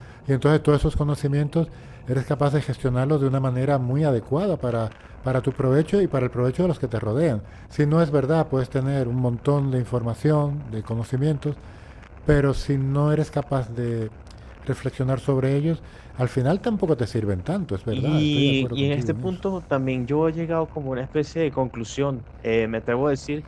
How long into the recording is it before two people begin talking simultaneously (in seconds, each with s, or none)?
17.9 s